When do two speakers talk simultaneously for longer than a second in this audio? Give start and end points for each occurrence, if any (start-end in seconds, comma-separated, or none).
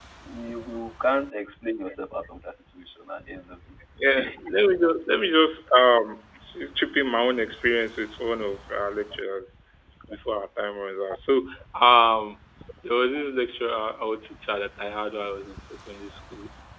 none